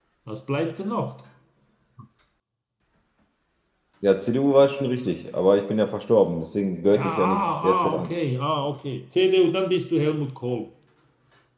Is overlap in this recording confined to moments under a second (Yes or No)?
No